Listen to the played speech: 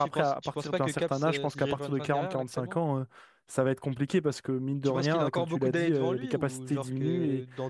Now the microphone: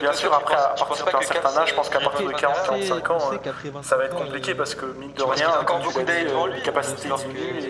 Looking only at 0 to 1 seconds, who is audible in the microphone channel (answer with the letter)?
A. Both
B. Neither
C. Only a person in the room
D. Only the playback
D